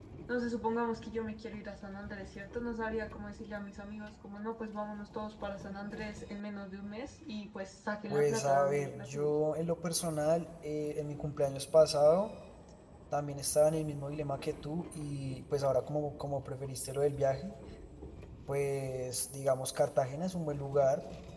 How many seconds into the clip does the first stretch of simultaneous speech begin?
8 s

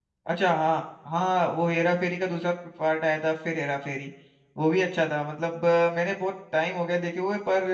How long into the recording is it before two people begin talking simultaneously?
none

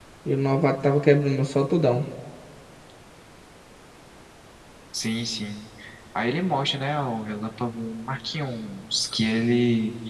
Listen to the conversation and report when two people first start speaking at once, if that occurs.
none

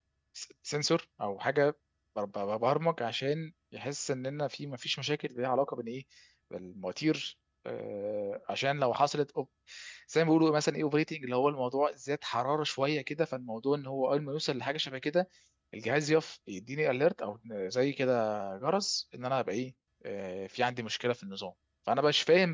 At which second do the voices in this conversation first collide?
none

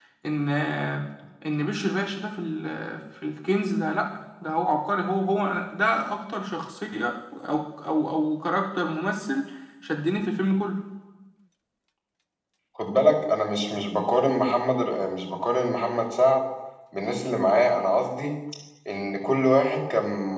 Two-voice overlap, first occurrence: none

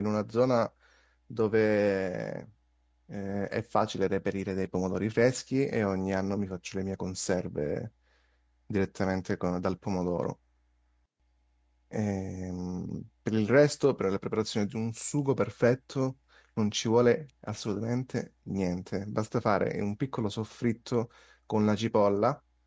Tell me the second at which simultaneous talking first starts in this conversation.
none

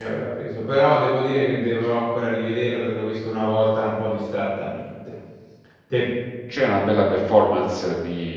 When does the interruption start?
none

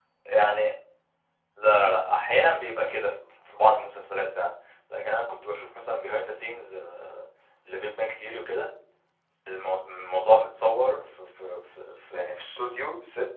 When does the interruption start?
none

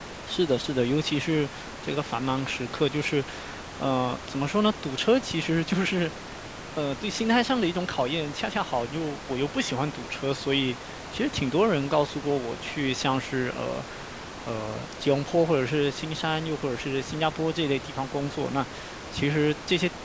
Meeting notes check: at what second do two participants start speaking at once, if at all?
none

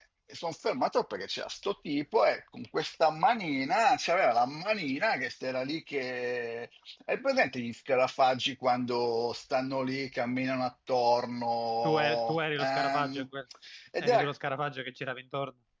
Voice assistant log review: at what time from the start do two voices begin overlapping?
12 s

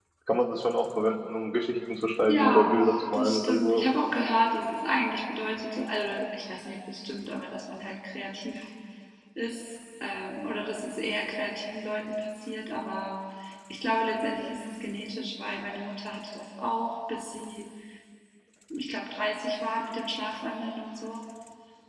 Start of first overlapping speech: 2 s

